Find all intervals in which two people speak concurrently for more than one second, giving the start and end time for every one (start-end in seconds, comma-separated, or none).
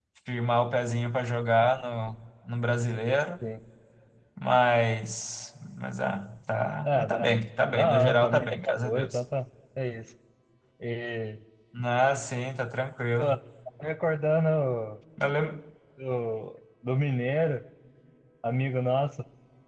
7.7-9.2